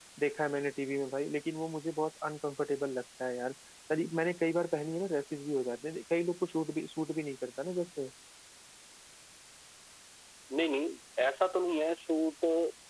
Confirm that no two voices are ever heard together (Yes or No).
Yes